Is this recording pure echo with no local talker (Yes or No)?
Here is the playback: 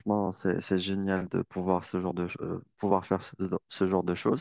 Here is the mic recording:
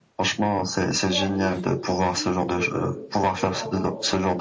No